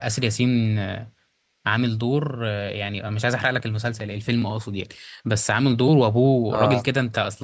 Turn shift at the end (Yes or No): No